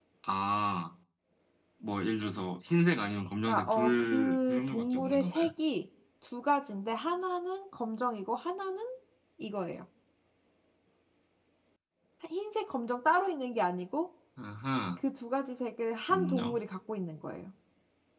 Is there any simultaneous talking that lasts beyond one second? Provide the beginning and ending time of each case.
3.5-5.5

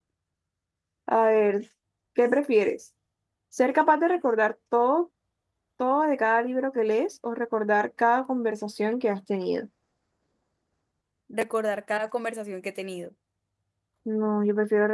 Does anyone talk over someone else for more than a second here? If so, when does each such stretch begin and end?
none

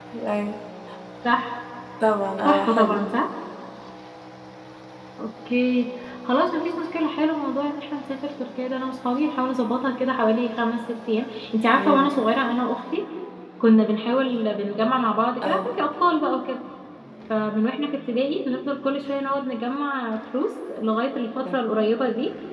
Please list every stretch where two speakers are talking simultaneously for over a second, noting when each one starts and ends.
none

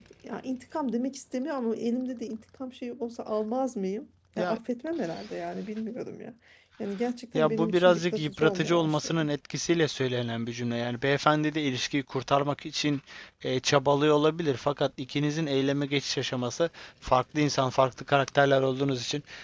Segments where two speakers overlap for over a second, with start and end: 7.3-9.3

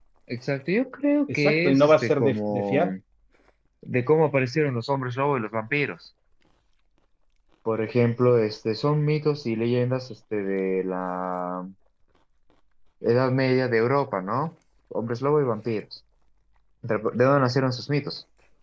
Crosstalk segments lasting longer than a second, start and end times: 1.3-2.9

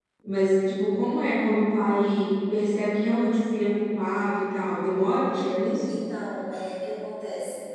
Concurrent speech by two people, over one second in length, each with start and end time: none

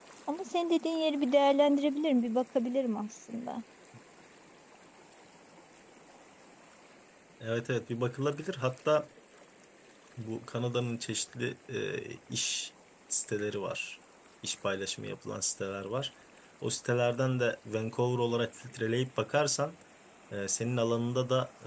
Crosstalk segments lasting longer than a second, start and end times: none

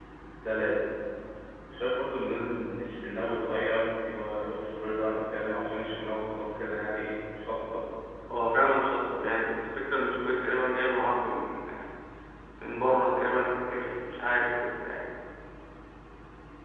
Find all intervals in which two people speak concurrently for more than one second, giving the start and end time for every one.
none

